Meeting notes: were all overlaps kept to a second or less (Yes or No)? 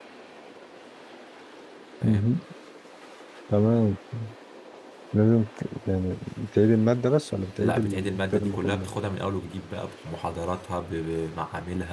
No